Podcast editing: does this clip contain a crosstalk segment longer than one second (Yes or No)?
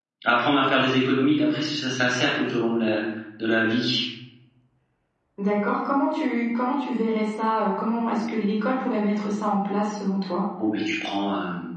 No